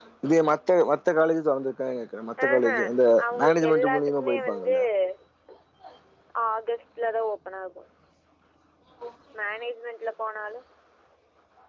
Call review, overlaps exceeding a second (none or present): present